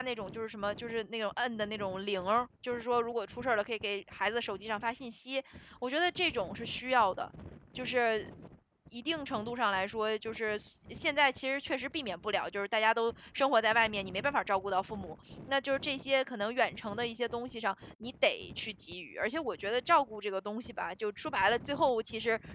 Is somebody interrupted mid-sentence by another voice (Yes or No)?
No